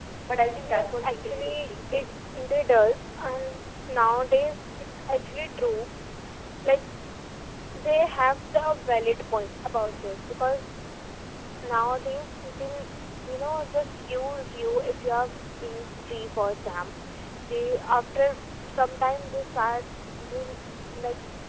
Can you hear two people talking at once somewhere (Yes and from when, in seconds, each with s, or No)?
Yes, from 0.6 s